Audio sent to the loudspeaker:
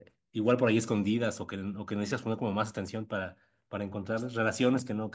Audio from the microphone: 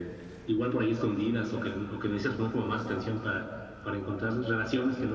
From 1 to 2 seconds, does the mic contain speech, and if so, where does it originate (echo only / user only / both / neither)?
echo only